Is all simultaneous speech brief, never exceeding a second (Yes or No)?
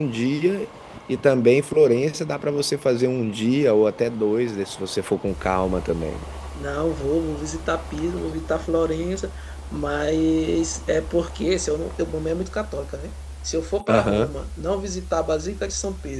Yes